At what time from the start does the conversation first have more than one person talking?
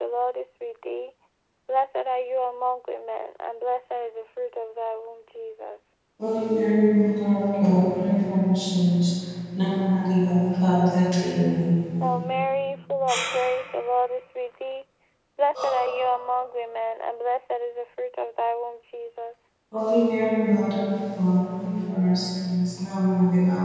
none

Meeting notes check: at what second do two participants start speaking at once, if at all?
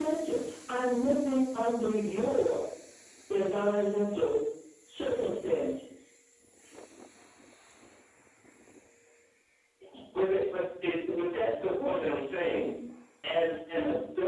none

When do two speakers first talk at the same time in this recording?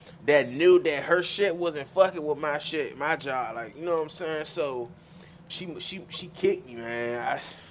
none

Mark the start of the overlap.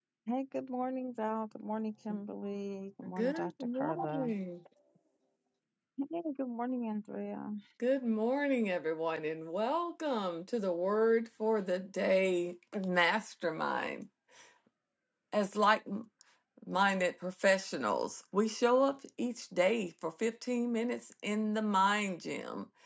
3.1 s

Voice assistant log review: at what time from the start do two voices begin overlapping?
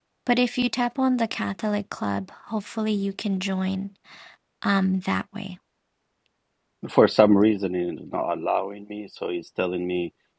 none

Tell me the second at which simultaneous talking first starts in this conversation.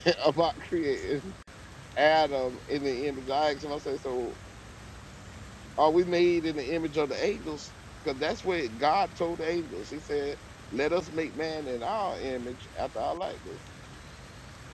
none

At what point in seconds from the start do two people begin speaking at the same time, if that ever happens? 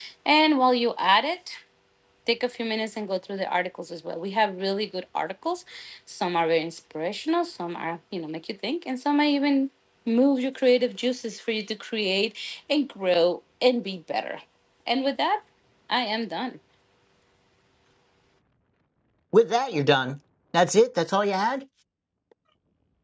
none

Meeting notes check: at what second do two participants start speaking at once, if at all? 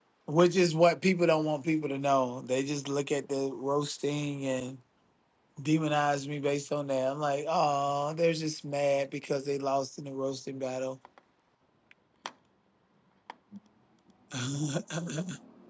none

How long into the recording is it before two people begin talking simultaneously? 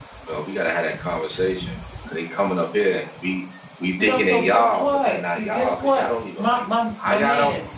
3.9 s

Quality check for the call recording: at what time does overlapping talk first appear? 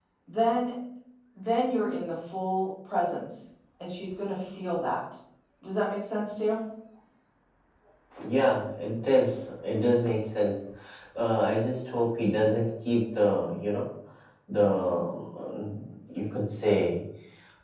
none

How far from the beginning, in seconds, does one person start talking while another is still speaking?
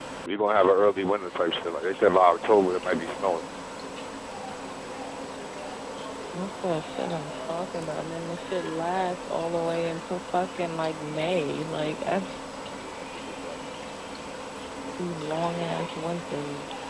none

